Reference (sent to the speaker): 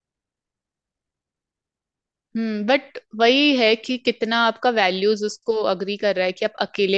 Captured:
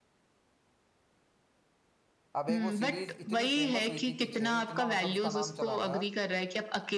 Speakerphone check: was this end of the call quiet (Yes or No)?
No